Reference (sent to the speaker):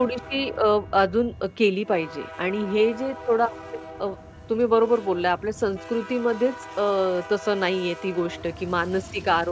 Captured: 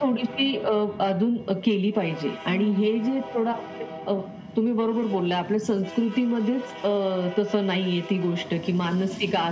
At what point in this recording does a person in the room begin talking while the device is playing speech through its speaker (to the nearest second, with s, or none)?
3 s